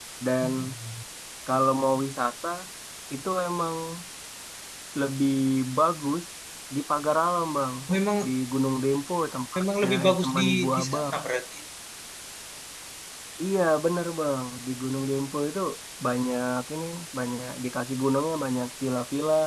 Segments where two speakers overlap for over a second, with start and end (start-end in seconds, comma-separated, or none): 9.6-11.1